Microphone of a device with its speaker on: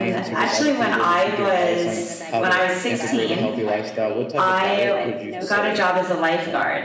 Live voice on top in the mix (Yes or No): Yes